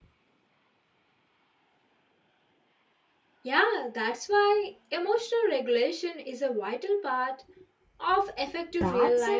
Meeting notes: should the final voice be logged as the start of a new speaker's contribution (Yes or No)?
Yes